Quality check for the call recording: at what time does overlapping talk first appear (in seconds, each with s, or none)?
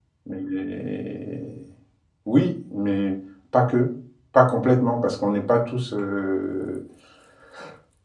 none